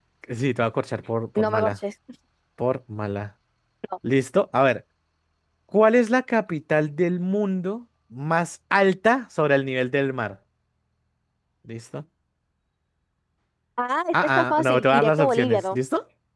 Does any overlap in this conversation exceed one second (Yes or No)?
Yes